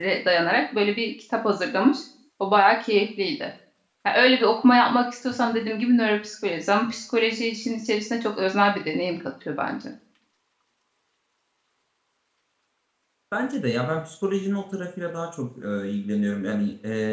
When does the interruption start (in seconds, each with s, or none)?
none